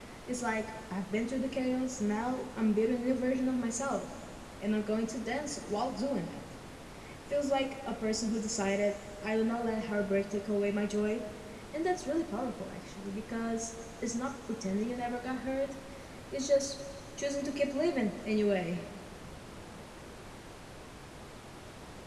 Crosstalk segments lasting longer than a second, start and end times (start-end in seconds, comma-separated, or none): none